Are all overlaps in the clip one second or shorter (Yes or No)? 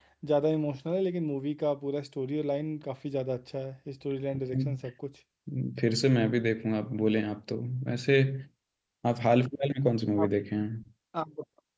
Yes